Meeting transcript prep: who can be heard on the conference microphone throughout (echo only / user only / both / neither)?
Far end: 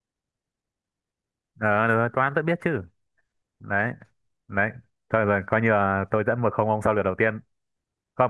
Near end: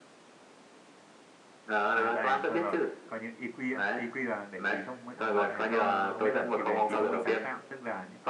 both